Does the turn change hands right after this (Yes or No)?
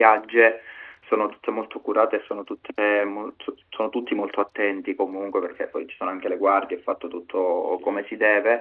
No